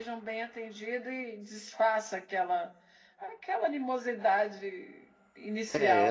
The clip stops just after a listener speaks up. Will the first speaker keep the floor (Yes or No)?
No